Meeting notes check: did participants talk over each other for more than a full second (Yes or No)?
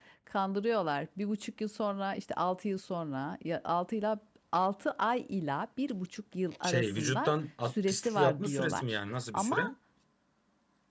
Yes